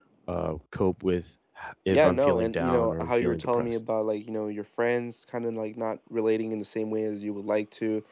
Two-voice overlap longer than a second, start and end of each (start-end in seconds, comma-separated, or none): 1.9-3.8